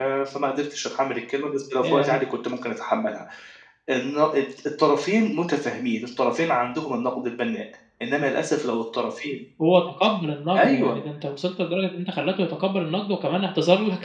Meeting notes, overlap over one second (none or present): none